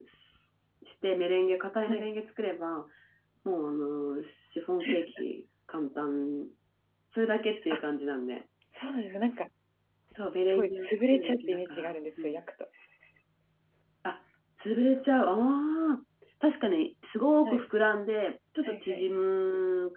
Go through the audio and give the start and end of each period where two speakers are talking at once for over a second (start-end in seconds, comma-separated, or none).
10.4-12.4